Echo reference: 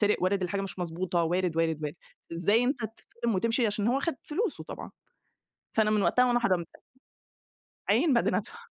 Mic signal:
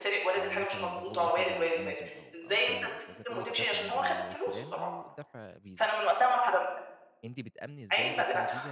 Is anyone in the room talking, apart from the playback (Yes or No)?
Yes